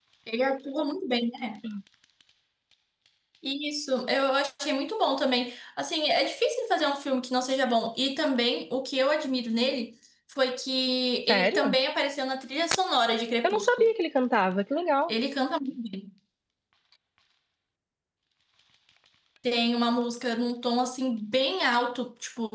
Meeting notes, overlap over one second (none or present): none